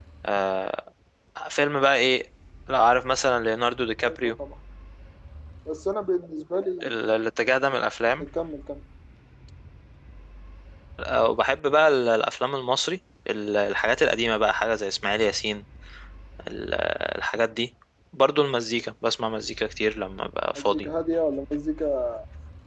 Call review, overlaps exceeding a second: none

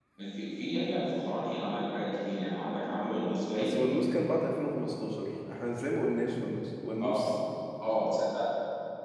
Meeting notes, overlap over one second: none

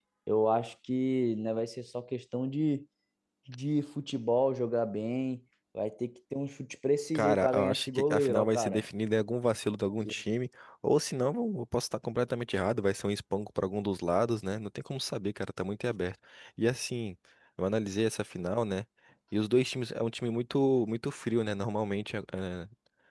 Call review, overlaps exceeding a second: present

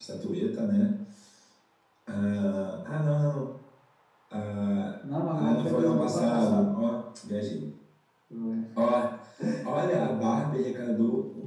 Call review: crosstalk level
present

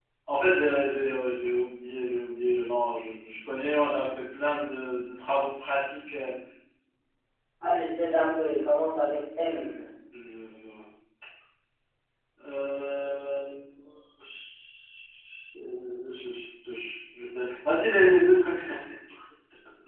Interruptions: none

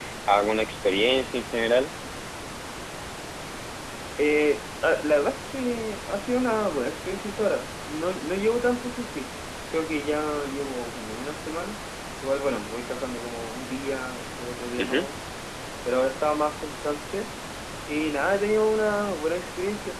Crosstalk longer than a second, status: none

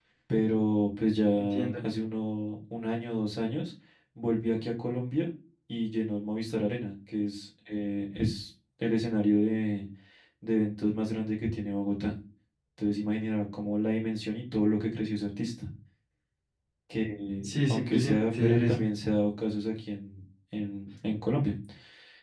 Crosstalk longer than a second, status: present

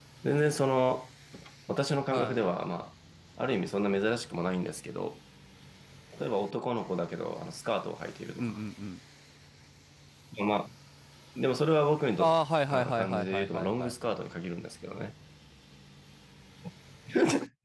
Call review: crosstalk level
present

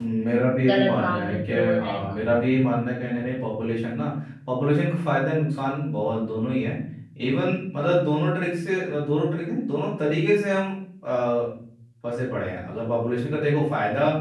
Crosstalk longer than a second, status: present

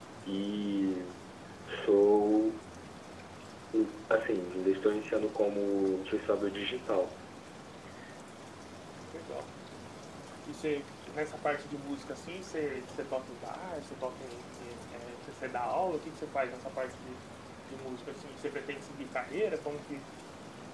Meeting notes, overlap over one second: none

